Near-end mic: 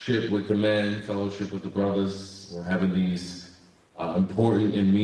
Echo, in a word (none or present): none